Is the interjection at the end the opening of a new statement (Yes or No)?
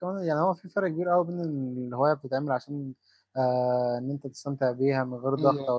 No